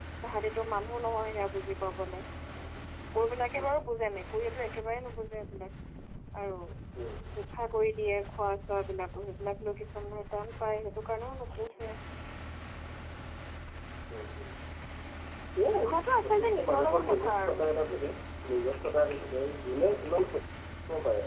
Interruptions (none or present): present